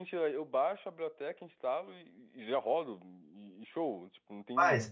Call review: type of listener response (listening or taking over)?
taking over